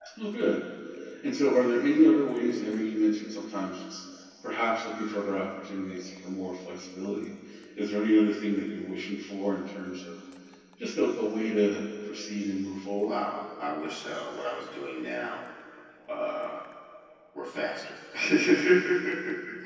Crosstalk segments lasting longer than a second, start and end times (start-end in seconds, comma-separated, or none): none